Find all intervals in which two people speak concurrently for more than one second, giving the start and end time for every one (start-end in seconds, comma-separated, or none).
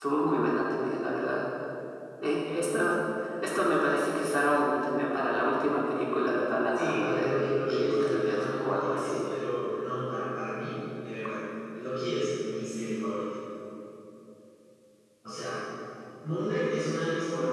6.8-9.3